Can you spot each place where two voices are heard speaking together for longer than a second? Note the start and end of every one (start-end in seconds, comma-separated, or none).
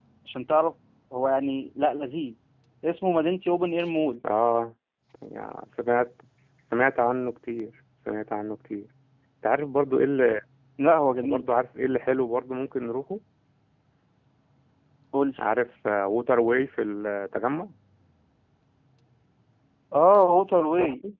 none